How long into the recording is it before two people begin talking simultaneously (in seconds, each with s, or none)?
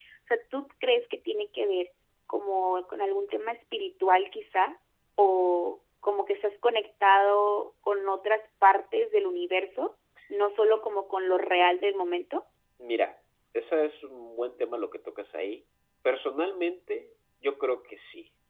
none